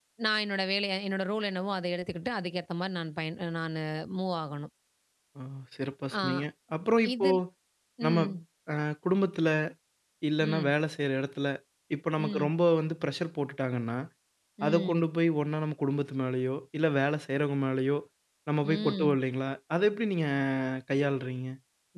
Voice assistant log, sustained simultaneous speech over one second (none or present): none